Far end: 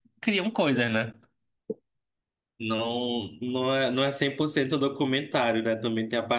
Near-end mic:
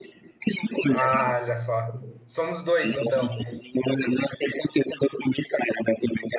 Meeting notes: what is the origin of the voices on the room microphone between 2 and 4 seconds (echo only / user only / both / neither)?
both